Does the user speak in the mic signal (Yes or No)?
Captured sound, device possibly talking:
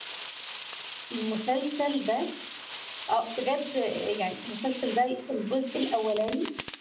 Yes